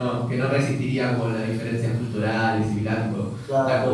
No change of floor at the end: No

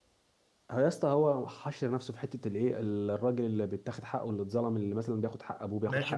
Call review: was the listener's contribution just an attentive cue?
No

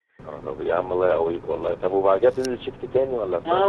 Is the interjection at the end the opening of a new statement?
Yes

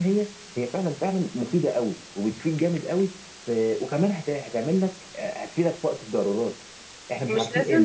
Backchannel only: No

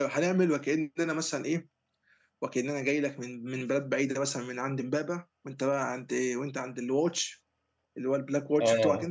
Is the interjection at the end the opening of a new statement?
Yes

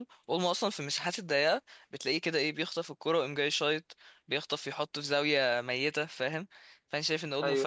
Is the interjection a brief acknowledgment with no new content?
Yes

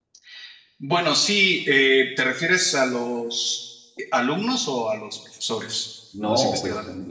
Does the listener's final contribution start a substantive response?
Yes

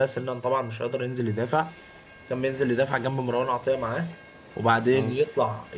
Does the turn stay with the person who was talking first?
Yes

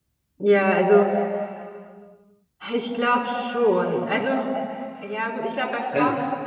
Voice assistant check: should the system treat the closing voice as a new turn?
No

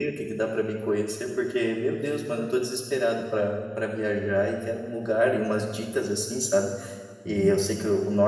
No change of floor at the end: Yes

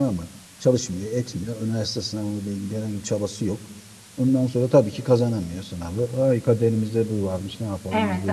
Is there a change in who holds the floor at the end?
Yes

